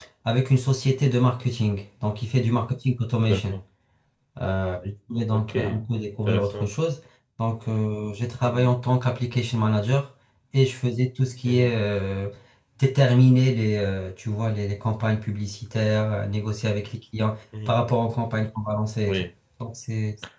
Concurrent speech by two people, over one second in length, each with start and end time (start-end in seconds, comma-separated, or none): none